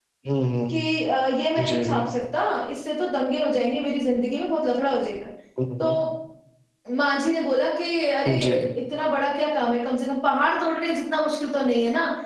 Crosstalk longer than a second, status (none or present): none